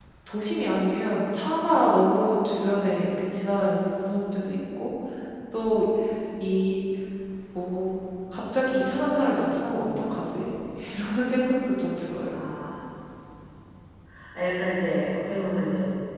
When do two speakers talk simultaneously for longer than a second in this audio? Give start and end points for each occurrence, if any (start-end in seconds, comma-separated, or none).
none